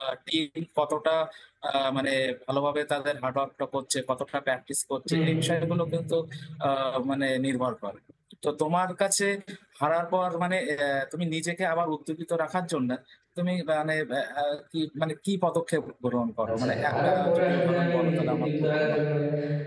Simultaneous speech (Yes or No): Yes